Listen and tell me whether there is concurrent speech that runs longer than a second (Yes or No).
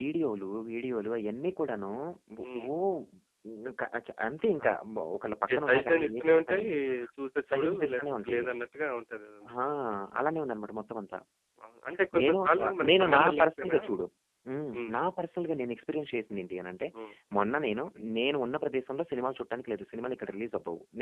Yes